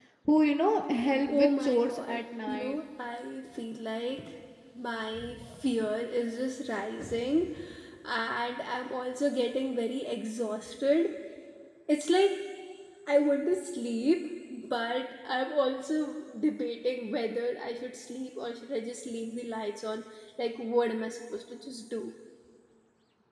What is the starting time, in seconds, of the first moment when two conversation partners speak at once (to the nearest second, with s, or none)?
1 s